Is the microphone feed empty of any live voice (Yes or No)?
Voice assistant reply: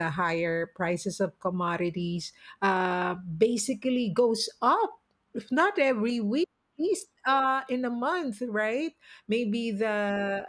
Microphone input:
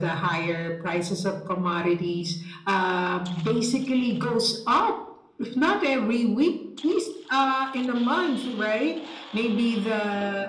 Yes